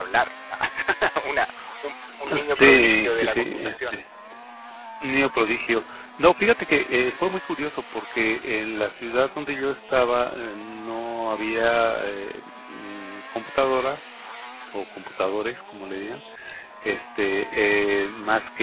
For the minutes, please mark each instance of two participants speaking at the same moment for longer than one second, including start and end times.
2.4-4.0

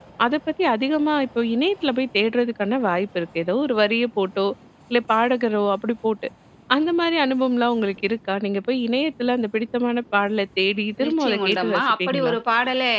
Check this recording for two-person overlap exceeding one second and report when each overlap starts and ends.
11.1-12.4

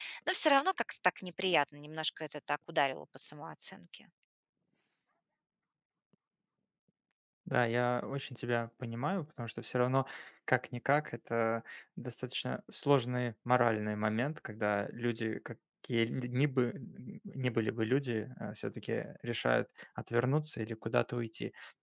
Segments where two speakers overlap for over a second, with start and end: none

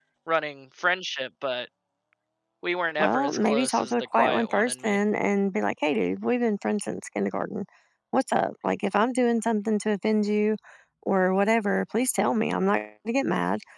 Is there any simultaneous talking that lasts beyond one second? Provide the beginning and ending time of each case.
3.0-5.0

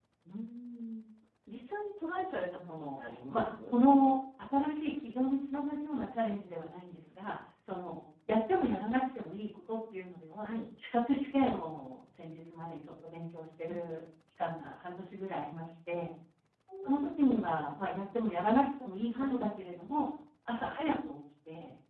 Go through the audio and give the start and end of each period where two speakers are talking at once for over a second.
2.5-3.8

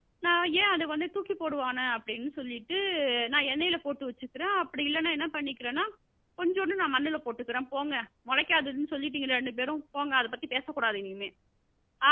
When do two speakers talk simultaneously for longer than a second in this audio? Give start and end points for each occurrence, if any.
none

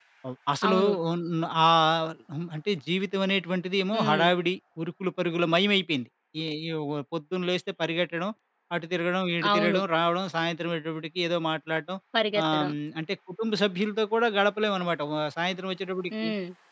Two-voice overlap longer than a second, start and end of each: none

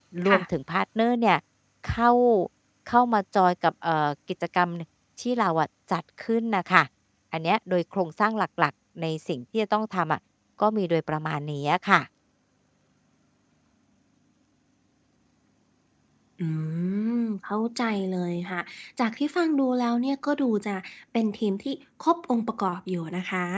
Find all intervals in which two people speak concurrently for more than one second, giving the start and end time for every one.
none

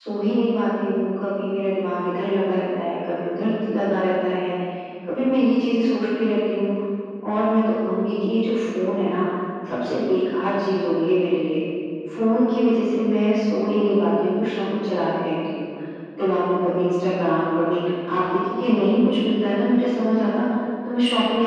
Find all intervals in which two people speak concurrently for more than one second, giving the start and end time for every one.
none

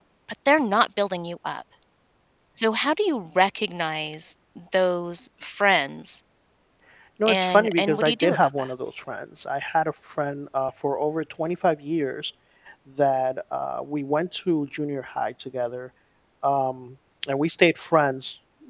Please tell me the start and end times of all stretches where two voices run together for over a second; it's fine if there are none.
7.3-8.7

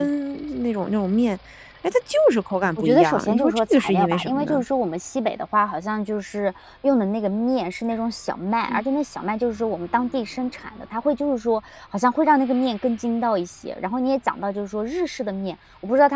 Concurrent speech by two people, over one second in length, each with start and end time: 2.8-4.6

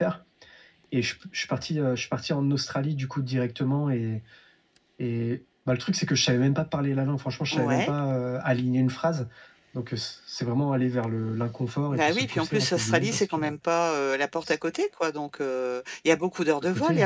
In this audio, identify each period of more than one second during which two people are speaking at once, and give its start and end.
11.9-13.4

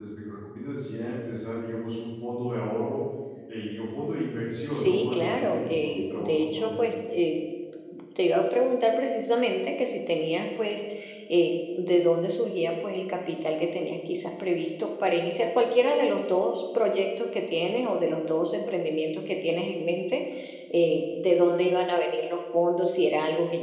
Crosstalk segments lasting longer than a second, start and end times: 4.7-6.8

